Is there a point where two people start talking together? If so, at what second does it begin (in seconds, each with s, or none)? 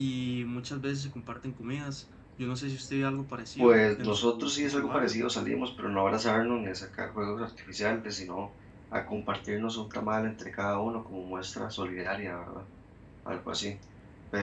3.6 s